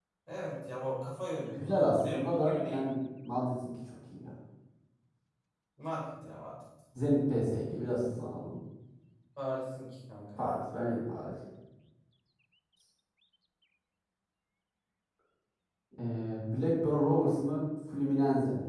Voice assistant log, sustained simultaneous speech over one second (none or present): present